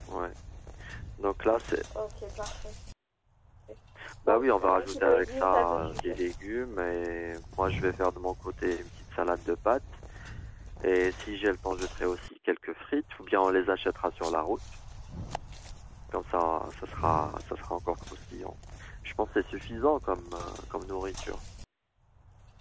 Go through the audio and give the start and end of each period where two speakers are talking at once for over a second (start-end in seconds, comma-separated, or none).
4.3-6.2